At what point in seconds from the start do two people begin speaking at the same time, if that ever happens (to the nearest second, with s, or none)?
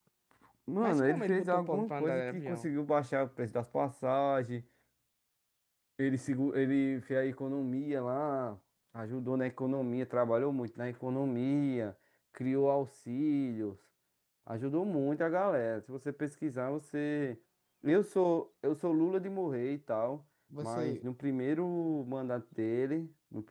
1 s